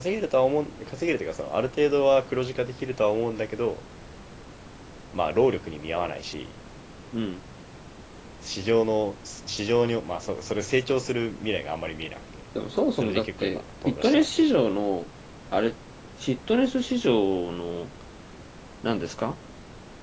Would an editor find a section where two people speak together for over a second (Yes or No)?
Yes